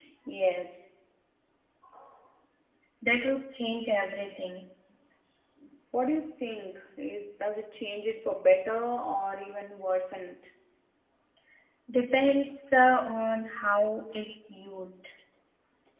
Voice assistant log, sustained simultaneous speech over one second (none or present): none